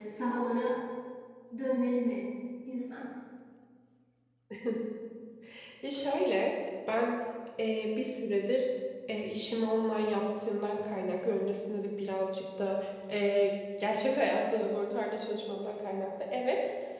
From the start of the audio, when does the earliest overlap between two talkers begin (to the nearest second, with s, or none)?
none